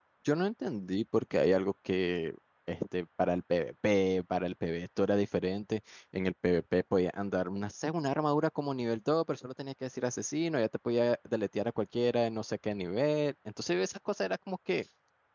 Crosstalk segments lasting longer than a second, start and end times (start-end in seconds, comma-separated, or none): none